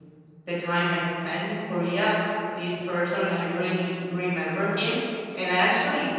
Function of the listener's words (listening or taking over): listening